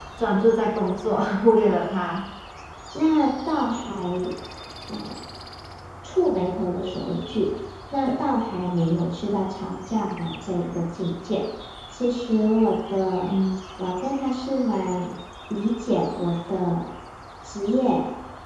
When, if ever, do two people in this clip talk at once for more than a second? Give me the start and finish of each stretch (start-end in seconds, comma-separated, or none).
none